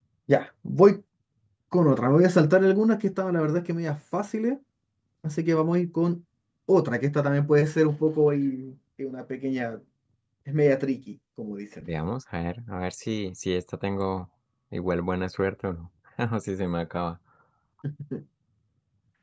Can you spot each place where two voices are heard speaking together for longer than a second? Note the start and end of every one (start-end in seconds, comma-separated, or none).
none